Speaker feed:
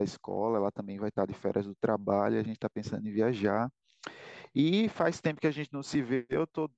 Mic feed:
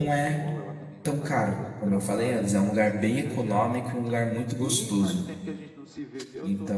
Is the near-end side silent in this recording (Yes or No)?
No